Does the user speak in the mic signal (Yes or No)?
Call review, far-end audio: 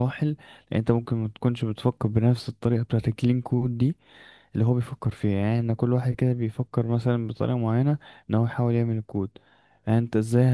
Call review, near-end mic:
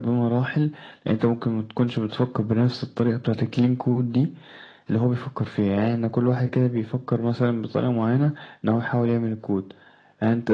No